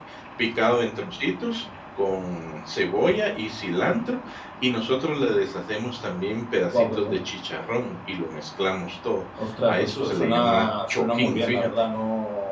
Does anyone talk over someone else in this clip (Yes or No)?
Yes